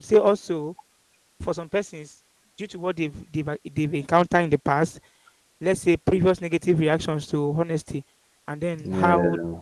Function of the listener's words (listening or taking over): listening